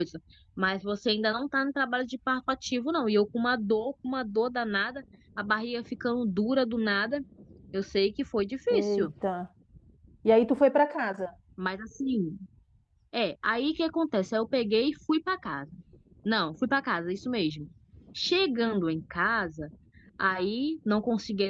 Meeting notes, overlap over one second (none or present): none